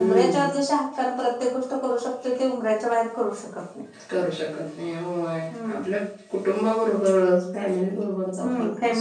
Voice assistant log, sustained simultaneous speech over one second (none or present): none